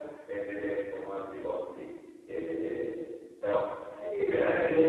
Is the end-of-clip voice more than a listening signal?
Yes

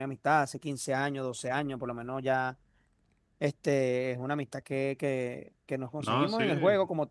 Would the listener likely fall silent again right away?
Yes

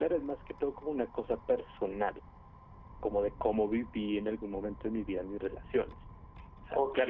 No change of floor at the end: Yes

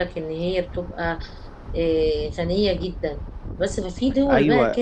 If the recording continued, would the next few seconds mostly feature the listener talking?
Yes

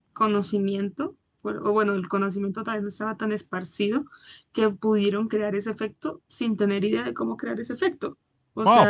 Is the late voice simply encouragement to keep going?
No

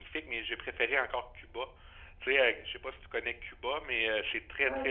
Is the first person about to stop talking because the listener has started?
No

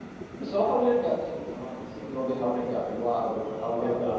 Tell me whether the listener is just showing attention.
No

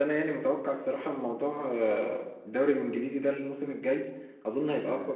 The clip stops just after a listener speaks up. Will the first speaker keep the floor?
Yes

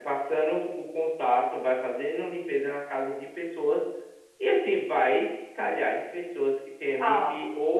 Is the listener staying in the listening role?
Yes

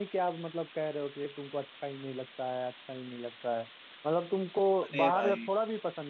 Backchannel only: Yes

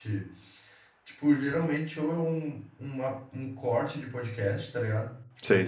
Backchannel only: Yes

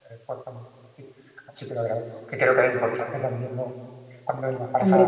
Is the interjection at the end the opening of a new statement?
No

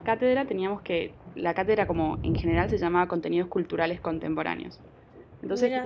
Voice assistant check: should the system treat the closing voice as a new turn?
No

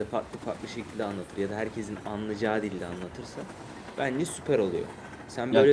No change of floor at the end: No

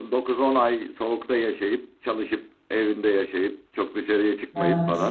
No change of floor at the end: Yes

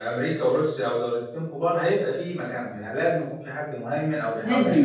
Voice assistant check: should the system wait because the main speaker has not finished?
No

